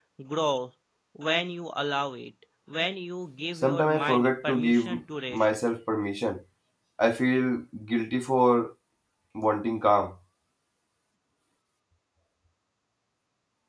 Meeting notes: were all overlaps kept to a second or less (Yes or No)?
No